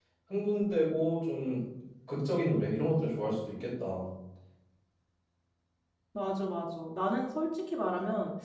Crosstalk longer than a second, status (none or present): none